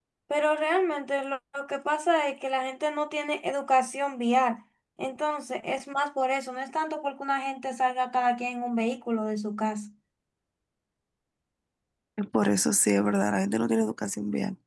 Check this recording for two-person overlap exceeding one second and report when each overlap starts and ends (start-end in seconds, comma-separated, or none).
none